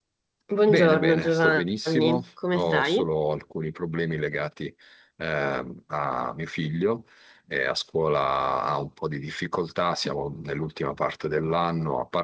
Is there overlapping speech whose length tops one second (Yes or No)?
Yes